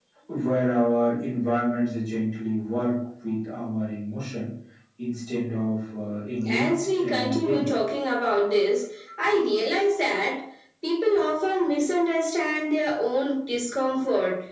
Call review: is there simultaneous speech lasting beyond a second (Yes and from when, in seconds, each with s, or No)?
Yes, from 6.5 s